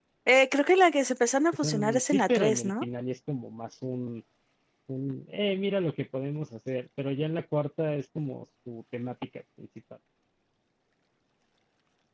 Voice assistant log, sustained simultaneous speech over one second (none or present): present